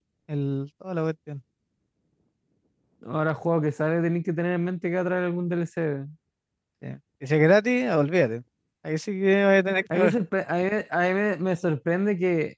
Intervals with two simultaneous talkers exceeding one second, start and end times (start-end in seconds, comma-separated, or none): none